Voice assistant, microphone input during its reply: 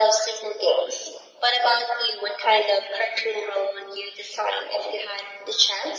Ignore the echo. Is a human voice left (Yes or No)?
No